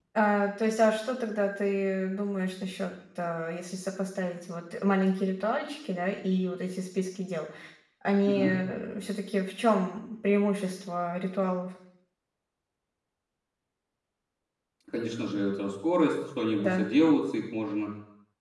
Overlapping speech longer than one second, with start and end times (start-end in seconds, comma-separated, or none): none